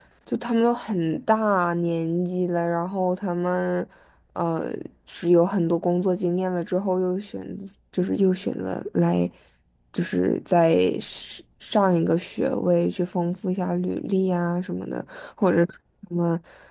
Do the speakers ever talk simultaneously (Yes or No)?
No